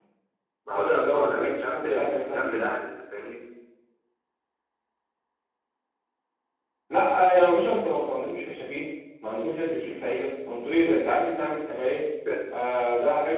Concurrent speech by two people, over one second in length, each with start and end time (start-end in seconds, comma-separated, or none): 0.7-2.7